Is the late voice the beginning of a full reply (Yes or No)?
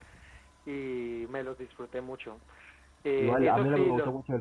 Yes